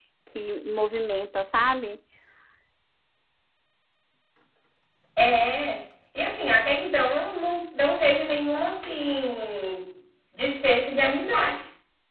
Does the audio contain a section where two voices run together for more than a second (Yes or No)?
No